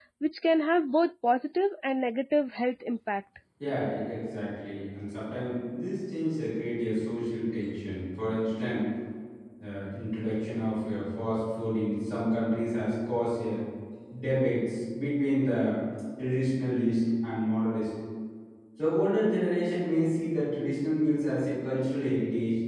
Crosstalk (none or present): none